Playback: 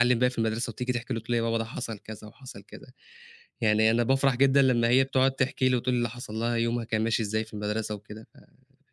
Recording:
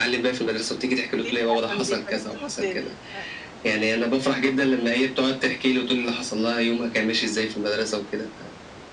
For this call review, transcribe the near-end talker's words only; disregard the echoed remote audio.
ليه؟ عشان بيبهدلوا الدنيا. أيوه، أيوه.

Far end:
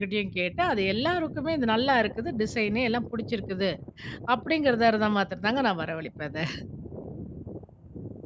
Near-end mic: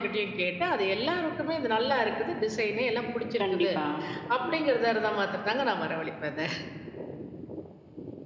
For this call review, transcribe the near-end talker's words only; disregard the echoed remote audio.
கண்டிப்பா. ம்.

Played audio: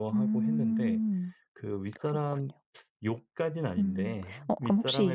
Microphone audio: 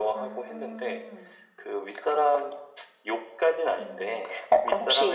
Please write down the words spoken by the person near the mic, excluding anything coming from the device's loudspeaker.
none

